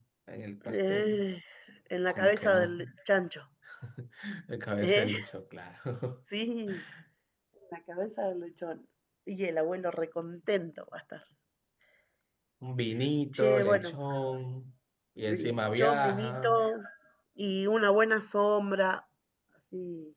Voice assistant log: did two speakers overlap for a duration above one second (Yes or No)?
Yes